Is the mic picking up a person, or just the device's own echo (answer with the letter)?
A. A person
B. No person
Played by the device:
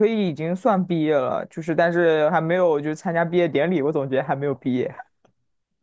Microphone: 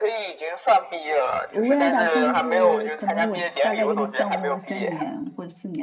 A